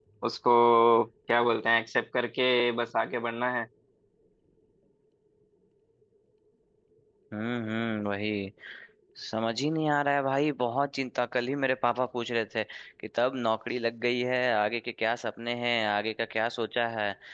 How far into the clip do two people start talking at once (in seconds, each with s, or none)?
none